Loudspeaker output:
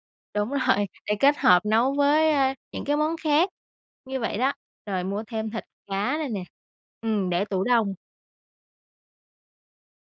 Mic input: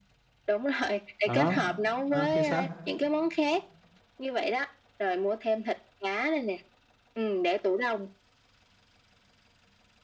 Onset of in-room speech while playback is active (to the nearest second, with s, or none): 1 s